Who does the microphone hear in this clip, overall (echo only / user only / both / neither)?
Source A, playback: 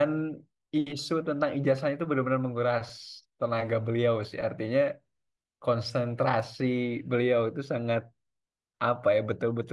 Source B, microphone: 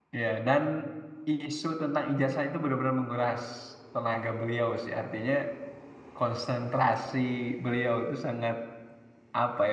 echo only